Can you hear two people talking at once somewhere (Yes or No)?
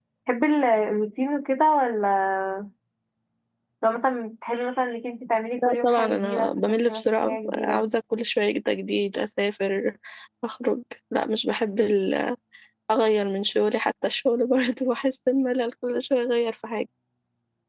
Yes